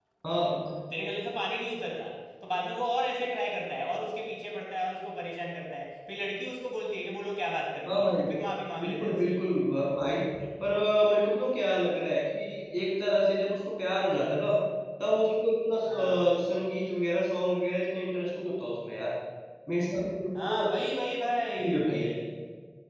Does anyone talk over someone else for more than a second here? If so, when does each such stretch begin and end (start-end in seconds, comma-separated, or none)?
none